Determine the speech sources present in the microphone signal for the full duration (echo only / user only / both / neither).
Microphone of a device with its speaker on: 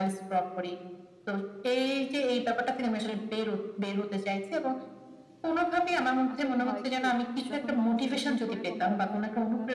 both